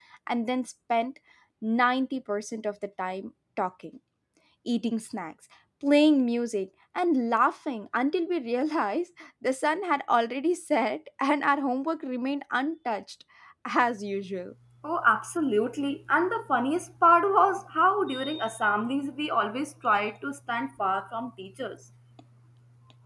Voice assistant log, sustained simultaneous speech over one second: none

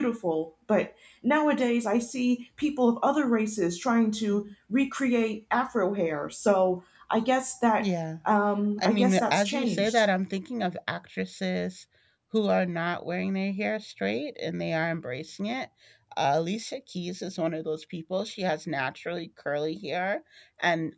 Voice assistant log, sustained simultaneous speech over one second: present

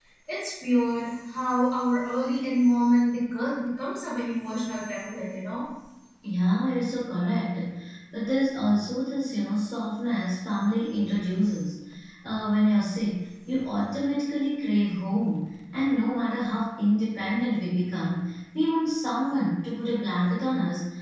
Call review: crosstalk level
none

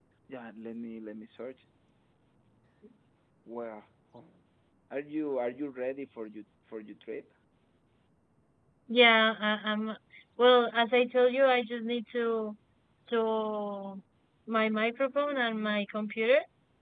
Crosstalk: none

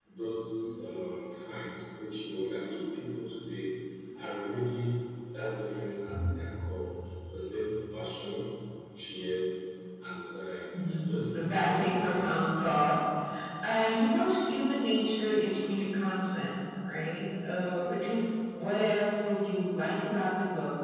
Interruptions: present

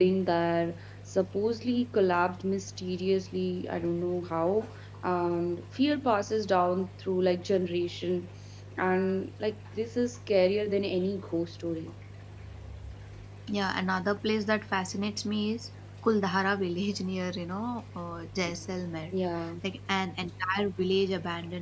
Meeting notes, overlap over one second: none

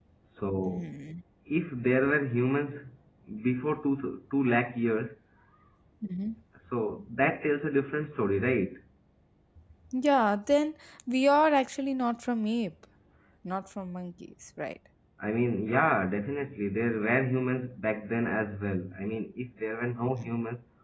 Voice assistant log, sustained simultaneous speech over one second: none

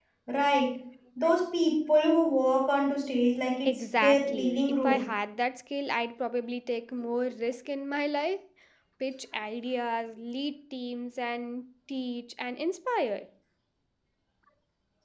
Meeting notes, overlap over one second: present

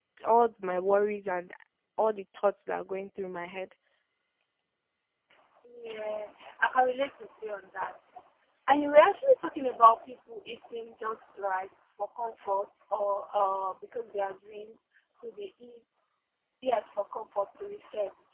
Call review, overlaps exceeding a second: none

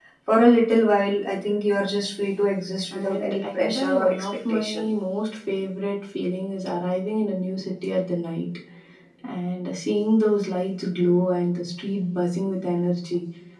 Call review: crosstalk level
present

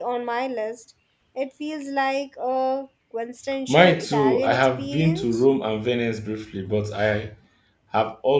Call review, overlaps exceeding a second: present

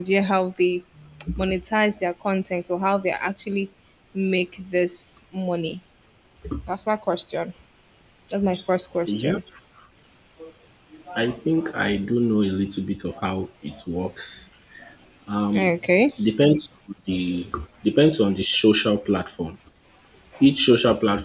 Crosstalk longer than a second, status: none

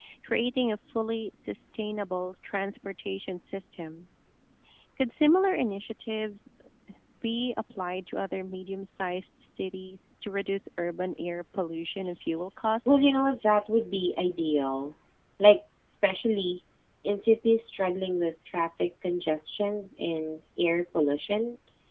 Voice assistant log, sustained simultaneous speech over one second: none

